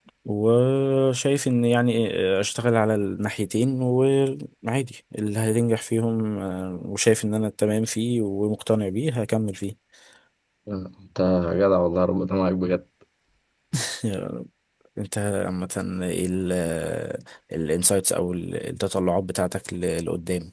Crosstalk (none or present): none